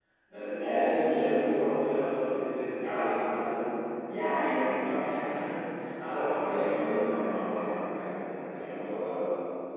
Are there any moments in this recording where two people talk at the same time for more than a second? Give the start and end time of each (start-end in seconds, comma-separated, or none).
6.1-8.8